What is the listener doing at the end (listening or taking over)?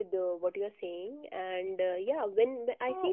listening